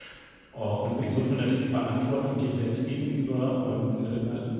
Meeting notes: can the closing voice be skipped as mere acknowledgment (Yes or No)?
Yes